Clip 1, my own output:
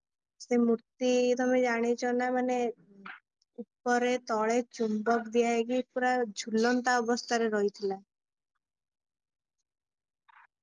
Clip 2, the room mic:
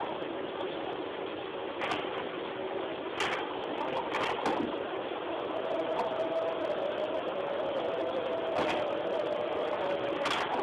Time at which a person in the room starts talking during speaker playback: none

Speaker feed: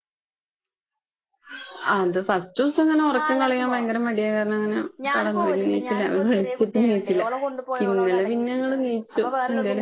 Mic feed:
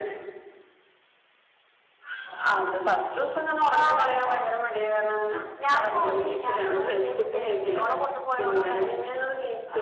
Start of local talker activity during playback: none

